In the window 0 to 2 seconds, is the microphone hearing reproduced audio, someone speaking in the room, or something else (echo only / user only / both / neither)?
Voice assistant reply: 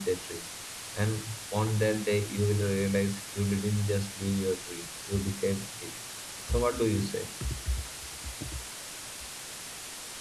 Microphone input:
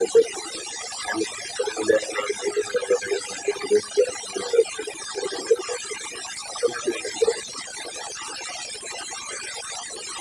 echo only